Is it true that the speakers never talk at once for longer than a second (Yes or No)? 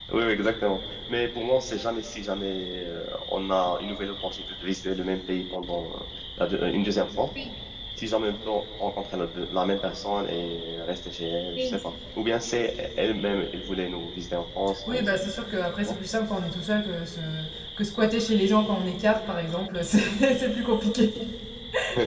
Yes